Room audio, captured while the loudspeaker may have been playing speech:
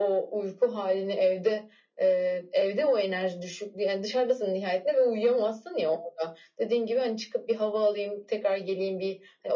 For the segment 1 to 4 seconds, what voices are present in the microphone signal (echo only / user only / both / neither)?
echo only